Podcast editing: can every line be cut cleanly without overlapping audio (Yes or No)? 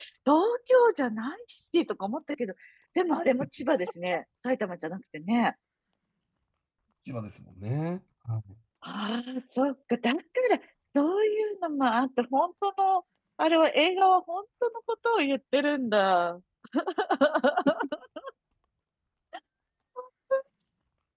Yes